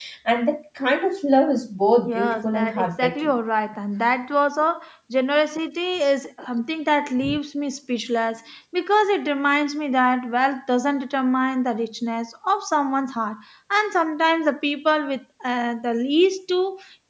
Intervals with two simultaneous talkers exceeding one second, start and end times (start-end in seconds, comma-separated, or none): 2.1-3.4